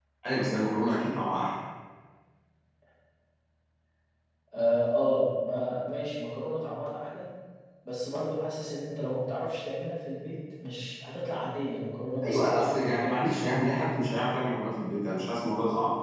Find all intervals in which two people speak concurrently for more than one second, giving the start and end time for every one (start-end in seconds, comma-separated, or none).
12.2-13.6